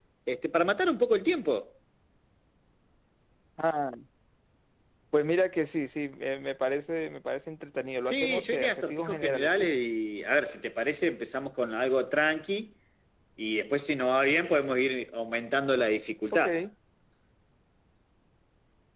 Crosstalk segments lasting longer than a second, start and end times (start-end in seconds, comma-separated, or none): 8.0-9.7